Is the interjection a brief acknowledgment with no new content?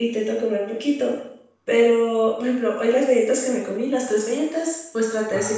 Yes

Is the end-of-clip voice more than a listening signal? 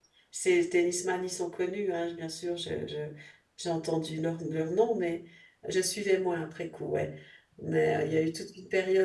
No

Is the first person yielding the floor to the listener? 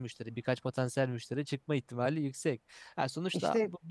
No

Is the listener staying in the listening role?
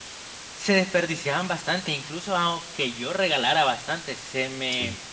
Yes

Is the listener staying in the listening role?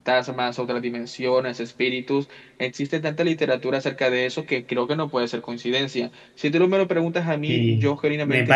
No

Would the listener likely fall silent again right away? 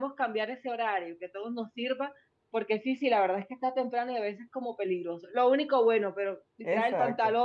Yes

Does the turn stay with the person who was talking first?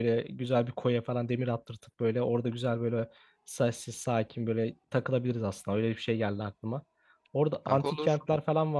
Yes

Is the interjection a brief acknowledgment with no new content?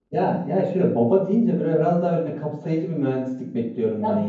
No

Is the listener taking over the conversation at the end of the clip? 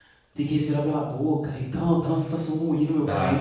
Yes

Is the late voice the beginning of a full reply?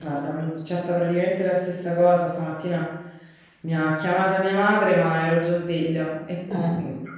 No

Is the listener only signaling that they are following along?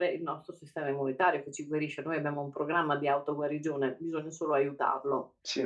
Yes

